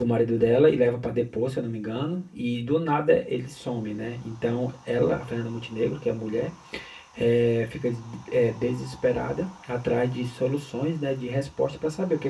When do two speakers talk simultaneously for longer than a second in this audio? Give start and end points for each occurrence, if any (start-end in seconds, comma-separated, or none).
none